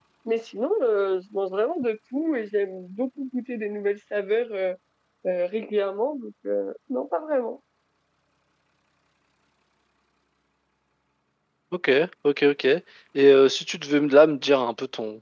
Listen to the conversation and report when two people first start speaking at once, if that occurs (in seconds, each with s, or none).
none